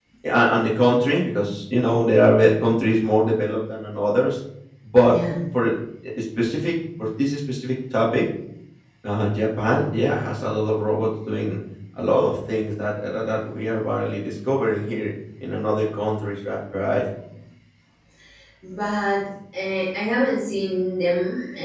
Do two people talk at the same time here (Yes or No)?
No